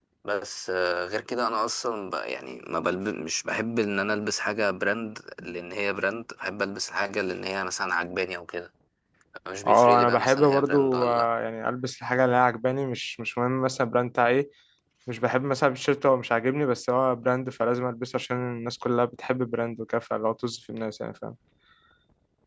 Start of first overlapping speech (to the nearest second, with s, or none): 10 s